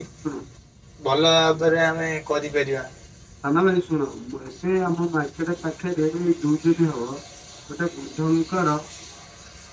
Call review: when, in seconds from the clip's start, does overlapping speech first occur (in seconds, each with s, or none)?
none